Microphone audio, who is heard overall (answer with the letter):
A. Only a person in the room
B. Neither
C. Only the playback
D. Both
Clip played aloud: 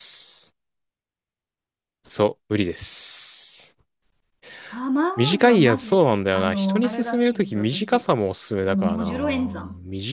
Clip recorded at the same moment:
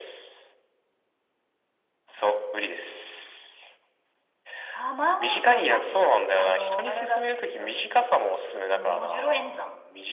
C